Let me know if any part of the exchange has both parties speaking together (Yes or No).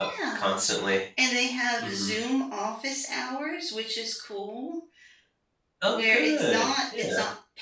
Yes